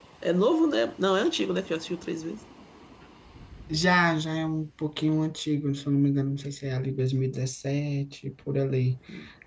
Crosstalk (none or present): none